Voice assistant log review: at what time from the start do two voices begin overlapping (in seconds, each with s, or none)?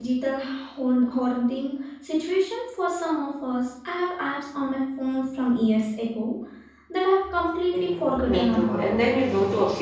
7.7 s